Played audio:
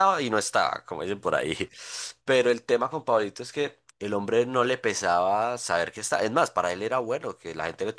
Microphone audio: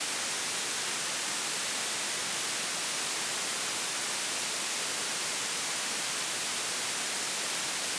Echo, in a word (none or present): none